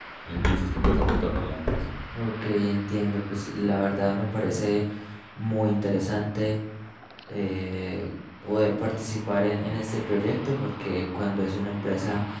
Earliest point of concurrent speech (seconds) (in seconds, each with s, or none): none